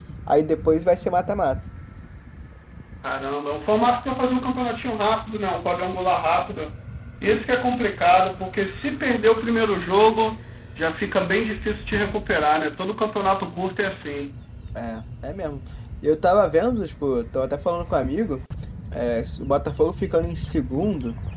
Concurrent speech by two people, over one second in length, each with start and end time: none

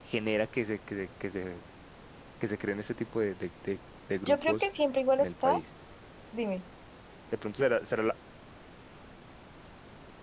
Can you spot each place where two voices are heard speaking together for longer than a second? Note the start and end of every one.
none

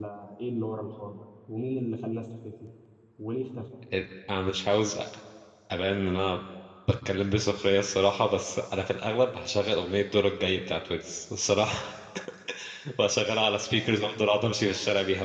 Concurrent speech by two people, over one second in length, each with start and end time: none

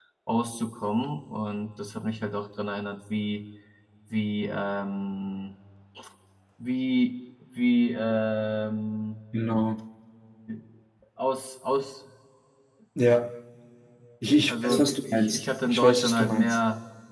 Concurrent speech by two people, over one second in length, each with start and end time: 14.5-16.6

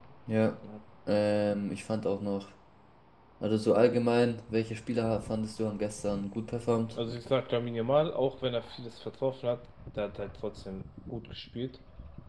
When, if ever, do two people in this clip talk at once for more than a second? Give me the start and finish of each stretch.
none

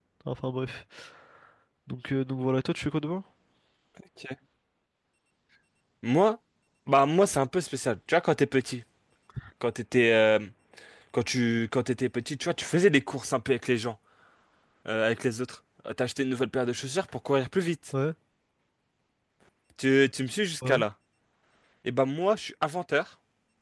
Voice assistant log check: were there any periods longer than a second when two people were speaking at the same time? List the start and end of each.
none

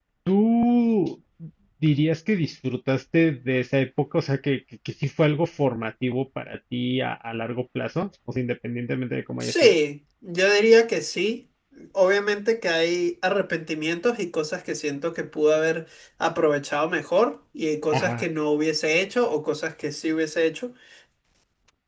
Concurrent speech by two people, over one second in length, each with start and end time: none

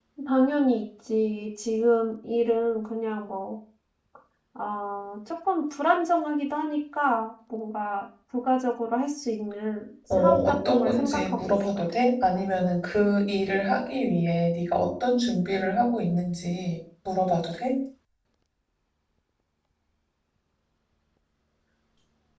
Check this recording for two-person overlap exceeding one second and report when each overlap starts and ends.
10.1-11.8

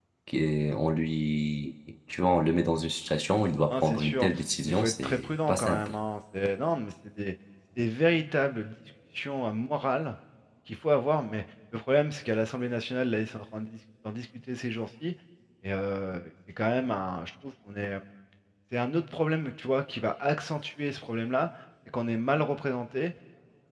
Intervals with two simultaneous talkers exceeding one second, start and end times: 4.7-5.9

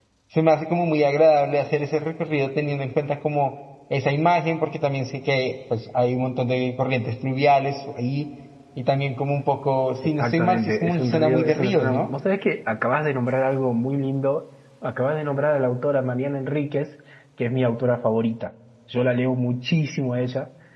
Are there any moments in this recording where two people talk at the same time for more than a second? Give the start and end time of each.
10.2-12.1

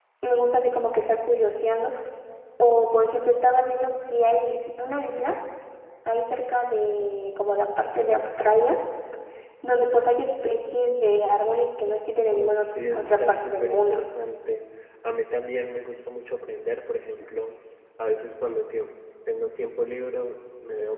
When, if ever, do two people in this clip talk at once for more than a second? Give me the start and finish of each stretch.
12.3-14.0

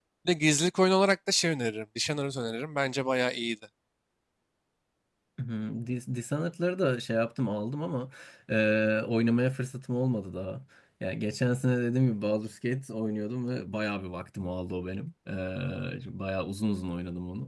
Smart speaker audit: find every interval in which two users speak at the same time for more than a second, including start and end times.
none

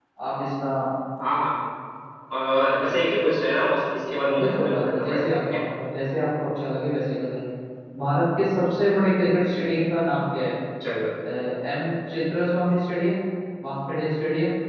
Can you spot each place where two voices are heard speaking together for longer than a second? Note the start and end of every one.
4.3-5.6

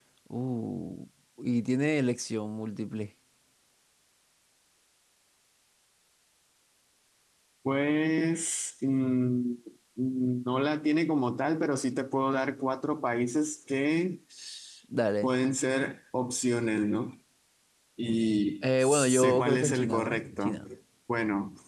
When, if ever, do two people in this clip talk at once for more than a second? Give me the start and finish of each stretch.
18.6-20.6

